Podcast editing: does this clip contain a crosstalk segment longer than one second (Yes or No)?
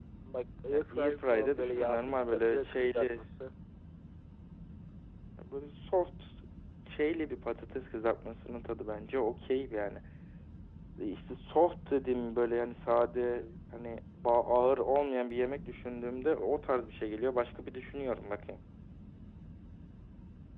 Yes